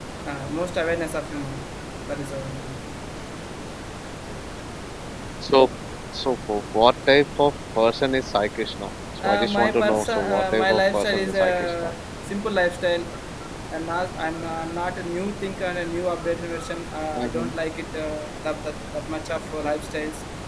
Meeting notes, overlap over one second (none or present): present